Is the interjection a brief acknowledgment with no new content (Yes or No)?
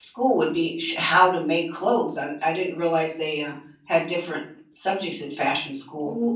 No